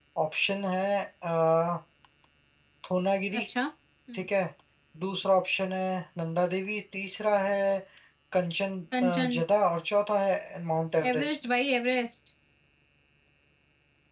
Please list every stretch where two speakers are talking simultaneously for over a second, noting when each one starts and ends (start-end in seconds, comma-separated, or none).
none